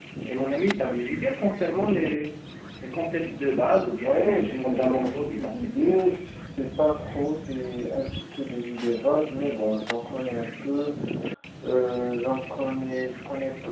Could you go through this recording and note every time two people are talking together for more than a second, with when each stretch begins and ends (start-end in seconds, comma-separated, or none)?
4.0-6.0